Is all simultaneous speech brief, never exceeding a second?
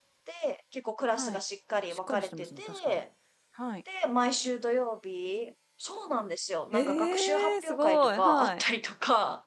No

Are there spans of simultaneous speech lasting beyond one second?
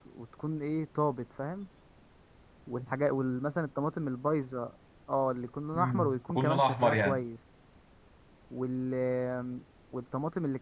Yes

